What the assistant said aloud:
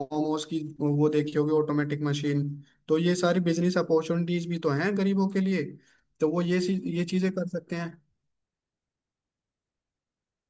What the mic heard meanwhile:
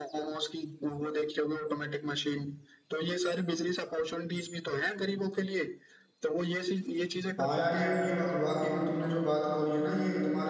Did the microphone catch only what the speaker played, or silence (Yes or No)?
No